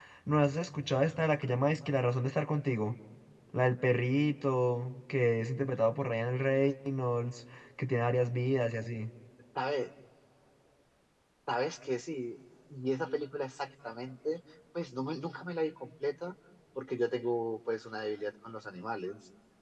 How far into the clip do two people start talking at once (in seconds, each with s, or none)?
none